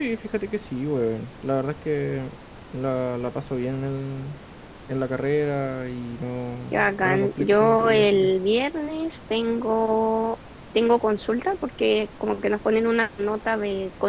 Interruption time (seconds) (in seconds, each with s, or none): 6.7 s